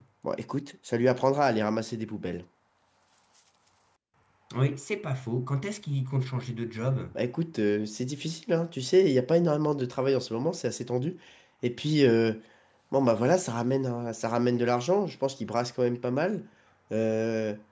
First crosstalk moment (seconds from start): none

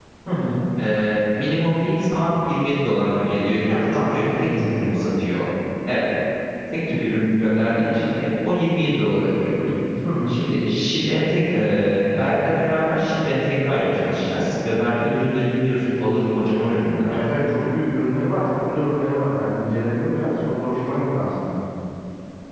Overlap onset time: 3.7 s

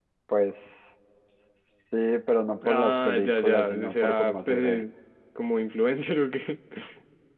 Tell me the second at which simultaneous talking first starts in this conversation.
2.6 s

